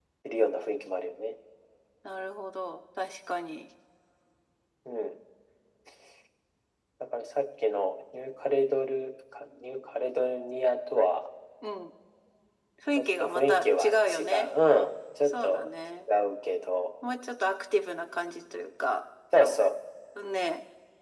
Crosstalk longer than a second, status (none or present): present